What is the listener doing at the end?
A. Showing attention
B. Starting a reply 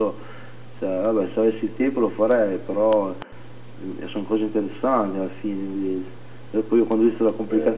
A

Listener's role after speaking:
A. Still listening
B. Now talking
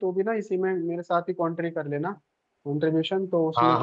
B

